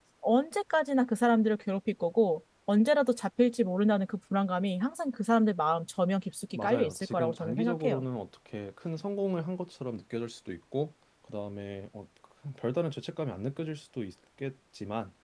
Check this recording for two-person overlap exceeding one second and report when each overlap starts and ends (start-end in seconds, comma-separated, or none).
6.5-8.0